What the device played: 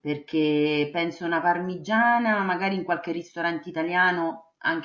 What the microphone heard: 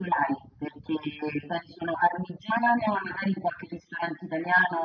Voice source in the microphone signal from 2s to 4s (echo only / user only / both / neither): echo only